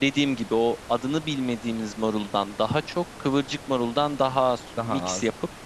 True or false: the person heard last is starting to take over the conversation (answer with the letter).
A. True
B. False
B